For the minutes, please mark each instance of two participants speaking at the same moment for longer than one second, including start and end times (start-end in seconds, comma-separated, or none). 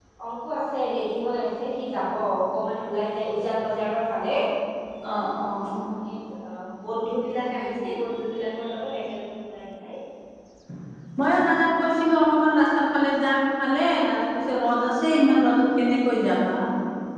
none